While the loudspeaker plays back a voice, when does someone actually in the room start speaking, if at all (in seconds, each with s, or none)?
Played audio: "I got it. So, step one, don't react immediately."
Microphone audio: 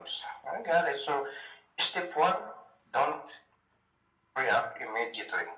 none